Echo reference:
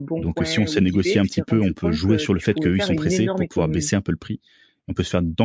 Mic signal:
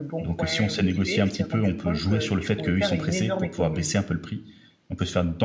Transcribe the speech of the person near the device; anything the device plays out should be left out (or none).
none